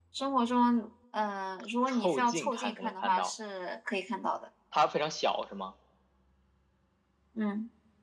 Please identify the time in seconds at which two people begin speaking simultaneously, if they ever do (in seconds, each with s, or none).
1.9 s